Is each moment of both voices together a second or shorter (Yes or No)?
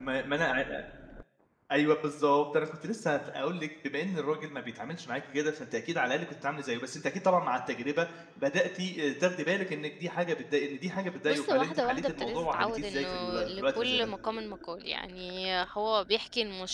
No